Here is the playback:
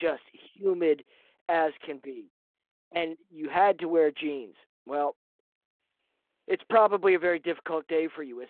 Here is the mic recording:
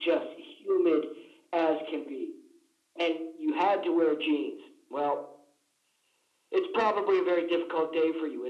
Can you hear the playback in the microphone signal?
Yes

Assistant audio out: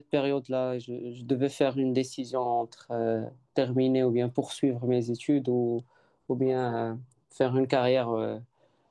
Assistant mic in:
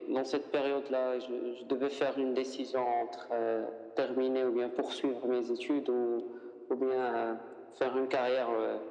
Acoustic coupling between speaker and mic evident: Yes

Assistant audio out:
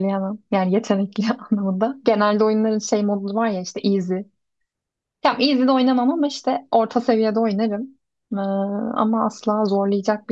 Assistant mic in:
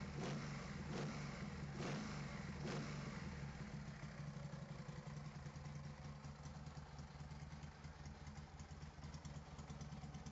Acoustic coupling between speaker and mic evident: No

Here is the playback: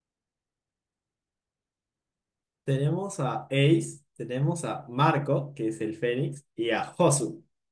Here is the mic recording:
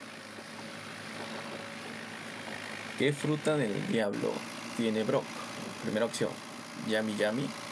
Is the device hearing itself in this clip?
No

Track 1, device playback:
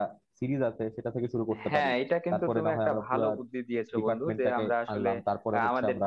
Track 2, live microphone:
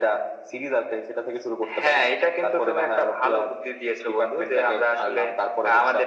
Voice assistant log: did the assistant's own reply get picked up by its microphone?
Yes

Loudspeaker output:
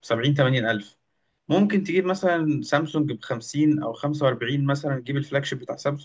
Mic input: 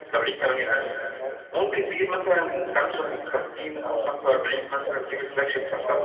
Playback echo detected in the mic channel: Yes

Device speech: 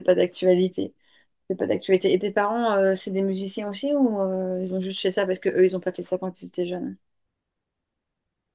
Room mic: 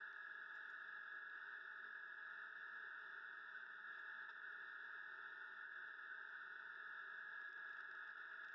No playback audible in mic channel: Yes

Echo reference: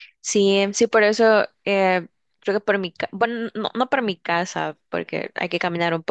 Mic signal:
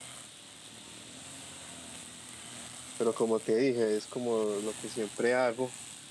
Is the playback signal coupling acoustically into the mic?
No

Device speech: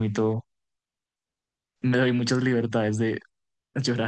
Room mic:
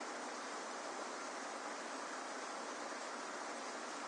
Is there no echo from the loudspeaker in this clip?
Yes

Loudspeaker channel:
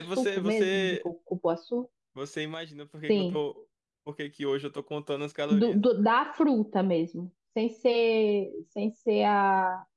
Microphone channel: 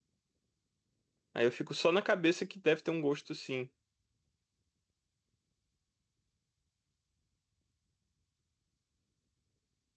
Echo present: No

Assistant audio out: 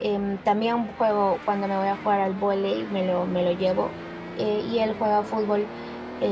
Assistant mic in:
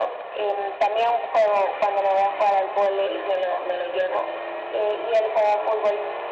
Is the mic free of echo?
No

